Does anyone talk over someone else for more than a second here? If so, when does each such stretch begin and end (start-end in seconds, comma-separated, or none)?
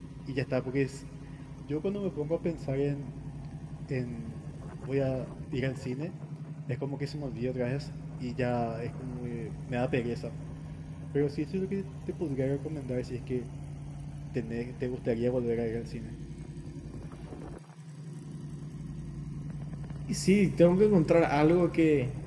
none